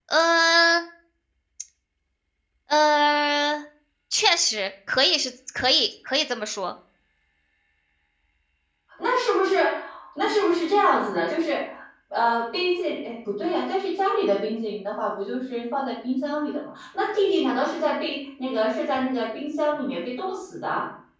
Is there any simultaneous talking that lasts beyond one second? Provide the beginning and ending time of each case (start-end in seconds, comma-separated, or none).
none